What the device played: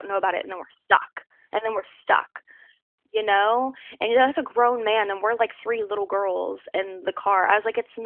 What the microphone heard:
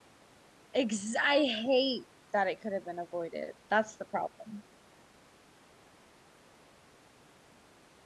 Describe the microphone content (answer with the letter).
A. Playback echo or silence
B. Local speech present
B